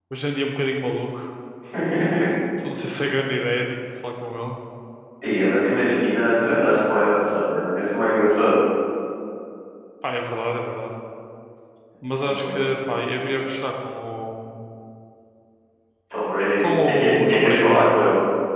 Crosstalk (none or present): present